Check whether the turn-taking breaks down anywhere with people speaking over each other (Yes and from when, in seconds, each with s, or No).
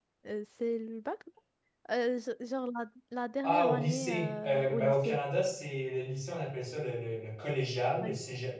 Yes, from 3.4 s